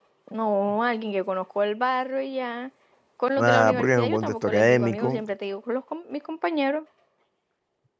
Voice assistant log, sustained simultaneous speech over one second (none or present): present